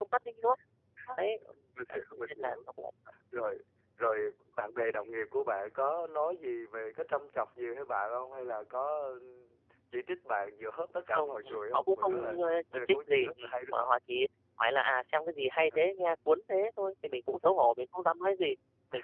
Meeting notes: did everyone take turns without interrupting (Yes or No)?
No